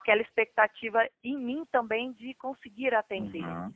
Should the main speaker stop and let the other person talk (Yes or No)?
Yes